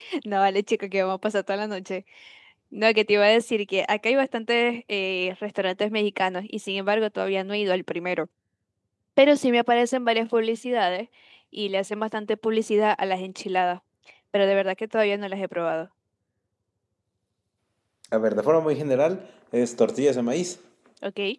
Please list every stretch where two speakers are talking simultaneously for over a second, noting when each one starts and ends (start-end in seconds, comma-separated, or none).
none